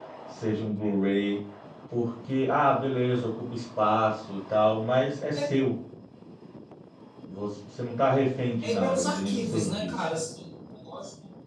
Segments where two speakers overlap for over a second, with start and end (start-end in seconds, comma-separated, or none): 8.6-10.2